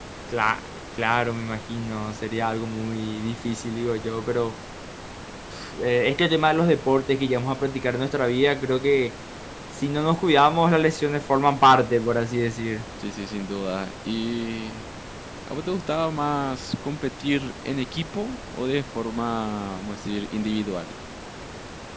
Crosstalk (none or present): none